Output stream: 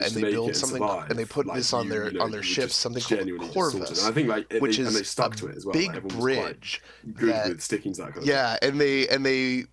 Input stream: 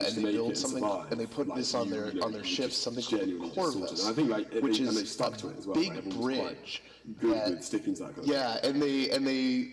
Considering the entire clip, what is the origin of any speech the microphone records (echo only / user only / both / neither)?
echo only